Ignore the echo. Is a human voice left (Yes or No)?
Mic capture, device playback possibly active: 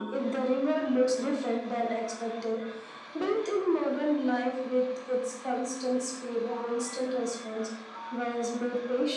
No